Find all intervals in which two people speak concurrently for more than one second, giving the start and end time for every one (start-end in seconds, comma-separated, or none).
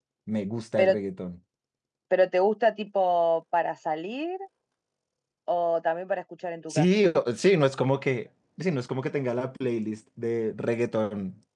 none